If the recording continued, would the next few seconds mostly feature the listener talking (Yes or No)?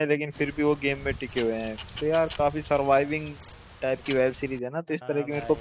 Yes